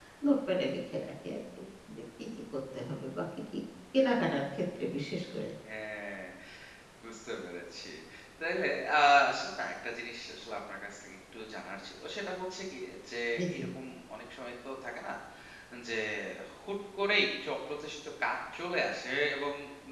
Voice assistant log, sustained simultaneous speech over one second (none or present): none